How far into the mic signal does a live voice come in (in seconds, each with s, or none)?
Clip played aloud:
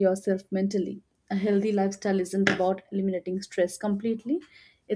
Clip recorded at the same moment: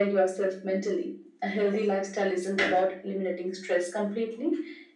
none